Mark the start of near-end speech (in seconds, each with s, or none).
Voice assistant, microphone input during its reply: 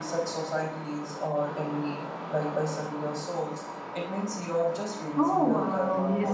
5.2 s